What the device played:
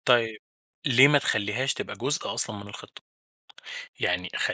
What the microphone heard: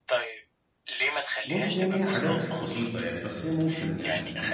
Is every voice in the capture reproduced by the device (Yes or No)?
No